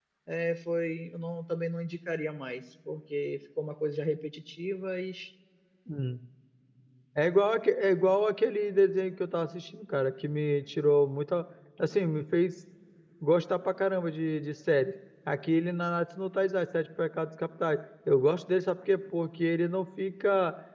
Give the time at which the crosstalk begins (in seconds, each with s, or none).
none